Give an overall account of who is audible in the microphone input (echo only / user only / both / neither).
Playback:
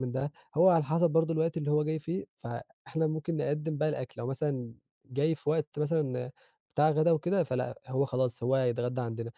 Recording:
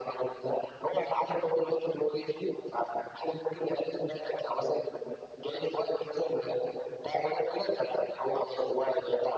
echo only